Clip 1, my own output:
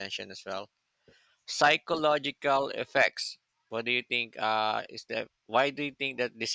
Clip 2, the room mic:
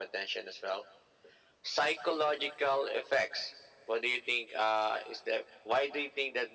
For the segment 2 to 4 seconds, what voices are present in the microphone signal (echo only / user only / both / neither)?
echo only